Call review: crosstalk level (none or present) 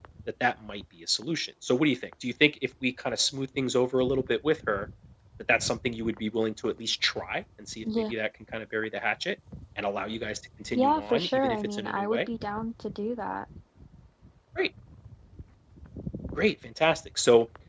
present